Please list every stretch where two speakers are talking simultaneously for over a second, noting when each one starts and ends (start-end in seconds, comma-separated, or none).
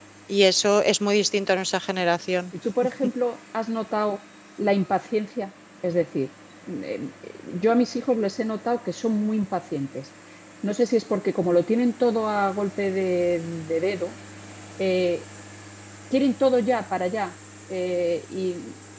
none